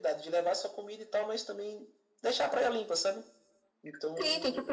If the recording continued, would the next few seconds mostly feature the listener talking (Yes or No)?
Yes